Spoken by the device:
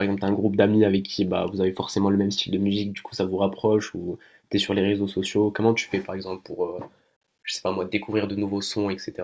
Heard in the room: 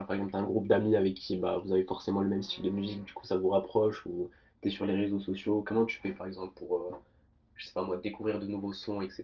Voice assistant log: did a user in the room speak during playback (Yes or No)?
No